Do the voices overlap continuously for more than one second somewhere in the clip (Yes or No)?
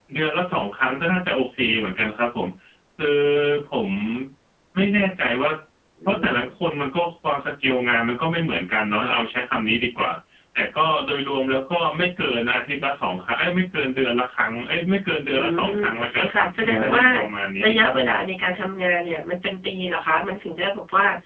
Yes